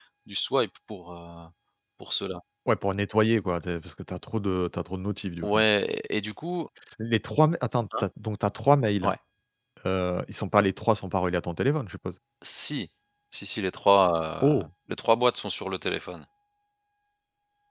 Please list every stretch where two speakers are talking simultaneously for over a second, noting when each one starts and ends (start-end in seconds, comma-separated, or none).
none